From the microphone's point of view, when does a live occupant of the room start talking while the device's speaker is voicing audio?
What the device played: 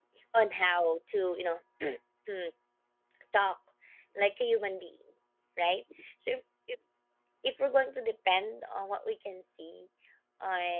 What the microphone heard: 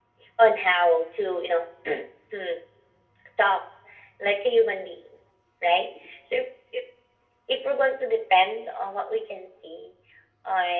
none

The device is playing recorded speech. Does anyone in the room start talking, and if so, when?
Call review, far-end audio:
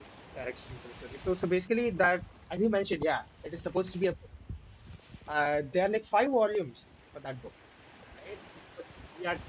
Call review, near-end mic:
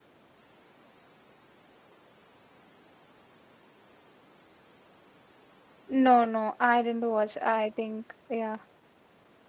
6 s

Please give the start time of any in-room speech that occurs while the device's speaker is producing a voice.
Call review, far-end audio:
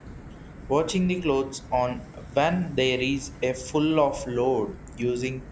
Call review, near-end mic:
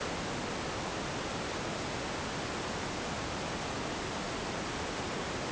none

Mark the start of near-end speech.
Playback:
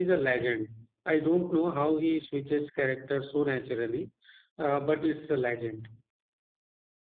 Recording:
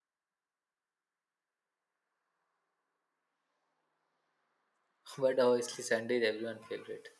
5 s

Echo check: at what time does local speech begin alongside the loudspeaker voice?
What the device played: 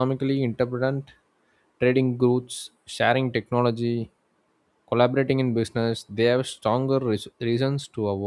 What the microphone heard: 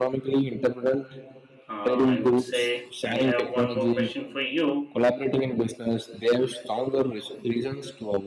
2 s

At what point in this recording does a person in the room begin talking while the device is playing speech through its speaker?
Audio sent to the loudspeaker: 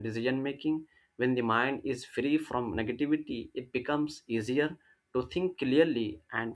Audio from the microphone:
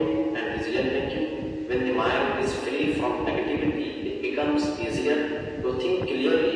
none

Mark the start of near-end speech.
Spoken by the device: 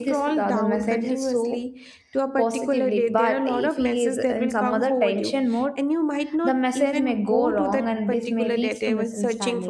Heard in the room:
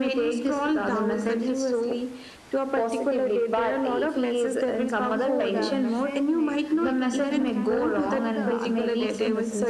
5 s

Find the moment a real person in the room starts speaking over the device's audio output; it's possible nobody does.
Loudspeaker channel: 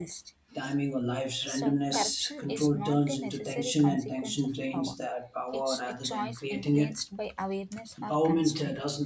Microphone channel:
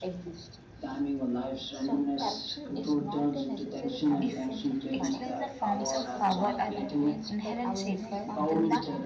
4 s

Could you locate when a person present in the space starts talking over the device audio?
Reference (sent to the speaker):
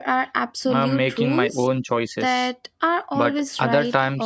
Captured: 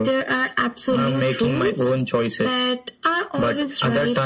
none

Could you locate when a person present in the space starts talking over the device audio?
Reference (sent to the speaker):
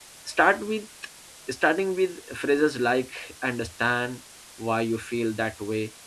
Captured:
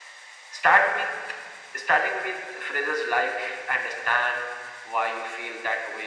none

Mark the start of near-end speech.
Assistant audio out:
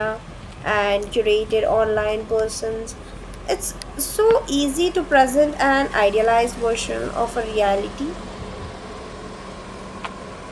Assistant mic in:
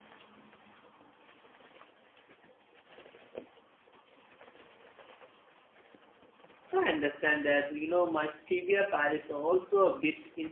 7 s

